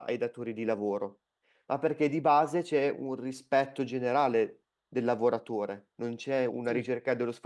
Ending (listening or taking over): listening